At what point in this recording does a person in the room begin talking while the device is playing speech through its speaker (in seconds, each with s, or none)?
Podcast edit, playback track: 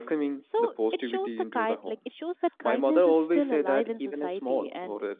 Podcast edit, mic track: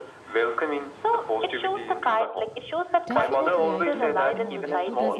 3.0 s